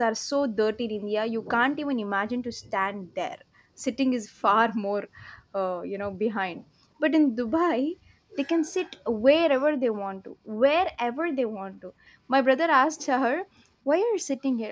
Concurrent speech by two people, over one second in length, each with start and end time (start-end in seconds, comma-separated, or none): none